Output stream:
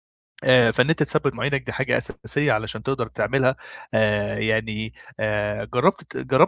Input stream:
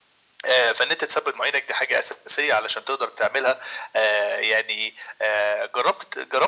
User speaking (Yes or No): No